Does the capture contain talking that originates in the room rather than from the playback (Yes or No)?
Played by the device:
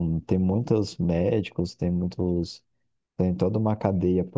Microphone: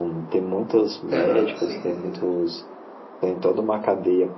Yes